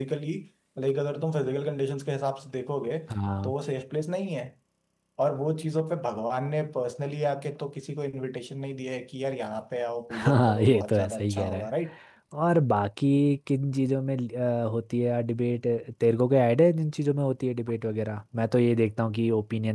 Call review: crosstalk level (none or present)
present